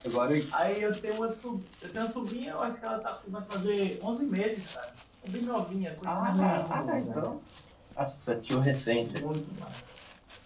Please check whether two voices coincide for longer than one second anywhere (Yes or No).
Yes